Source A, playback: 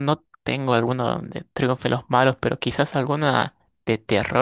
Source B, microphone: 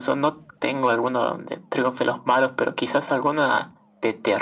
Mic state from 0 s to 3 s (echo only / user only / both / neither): echo only